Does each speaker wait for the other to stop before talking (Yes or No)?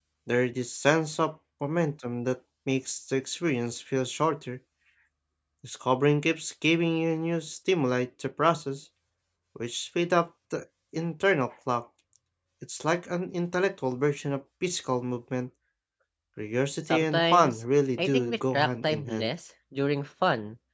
No